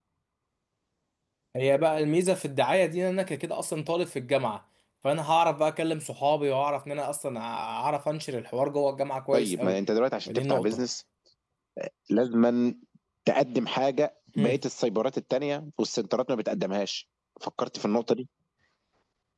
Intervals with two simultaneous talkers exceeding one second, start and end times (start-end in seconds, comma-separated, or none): none